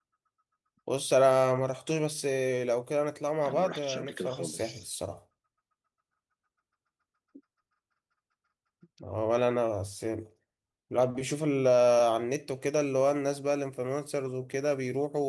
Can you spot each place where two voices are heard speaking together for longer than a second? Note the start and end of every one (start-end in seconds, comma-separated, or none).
3.5-4.8